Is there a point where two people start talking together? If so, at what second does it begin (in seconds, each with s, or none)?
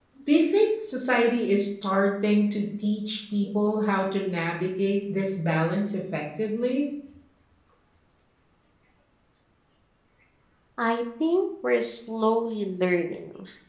none